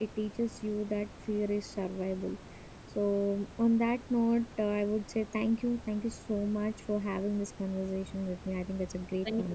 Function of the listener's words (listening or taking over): taking over